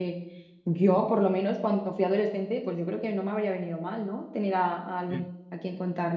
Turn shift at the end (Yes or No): No